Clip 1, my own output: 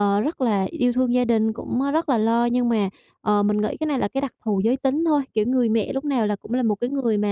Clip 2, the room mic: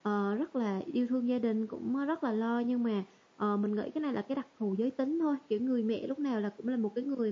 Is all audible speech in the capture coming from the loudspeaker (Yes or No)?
Yes